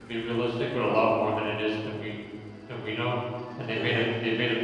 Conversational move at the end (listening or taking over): listening